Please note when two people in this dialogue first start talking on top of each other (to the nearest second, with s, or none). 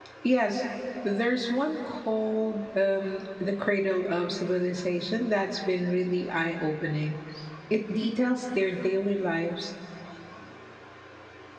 none